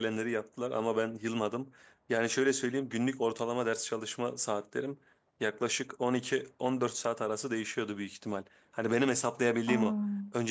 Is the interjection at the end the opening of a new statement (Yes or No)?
No